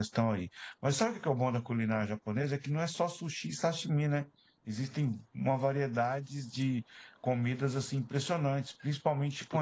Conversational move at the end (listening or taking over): listening